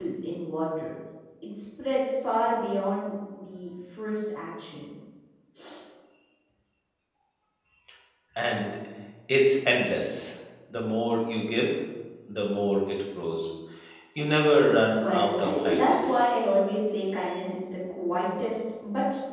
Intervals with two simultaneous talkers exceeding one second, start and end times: 15.0-16.3

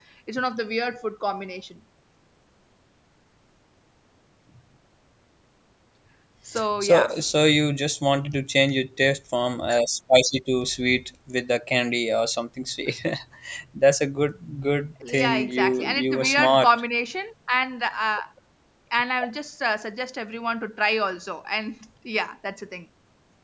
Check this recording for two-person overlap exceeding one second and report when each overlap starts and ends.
15.1-16.7

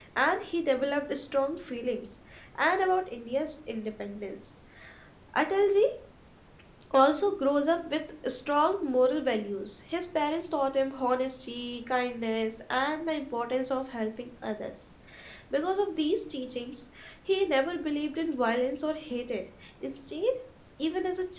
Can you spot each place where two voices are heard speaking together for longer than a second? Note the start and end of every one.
none

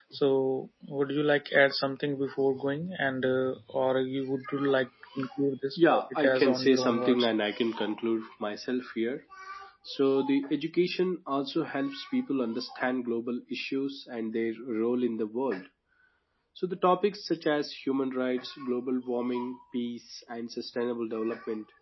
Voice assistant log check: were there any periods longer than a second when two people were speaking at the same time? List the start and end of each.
5.8-7.3

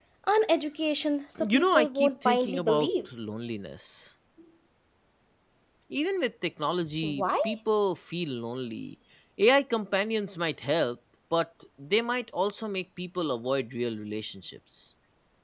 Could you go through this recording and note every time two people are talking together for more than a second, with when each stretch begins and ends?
1.5-3.1

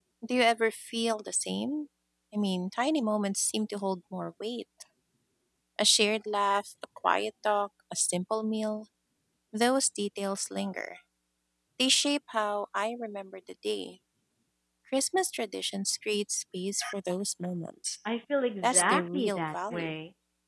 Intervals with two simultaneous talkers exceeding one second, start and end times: 18.6-19.9

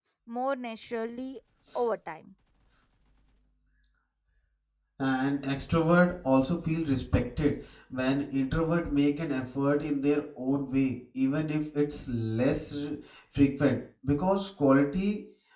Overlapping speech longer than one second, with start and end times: none

